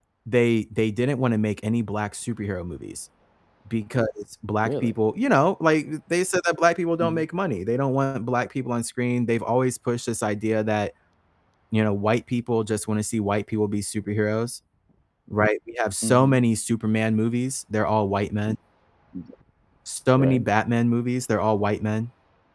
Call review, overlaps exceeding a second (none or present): none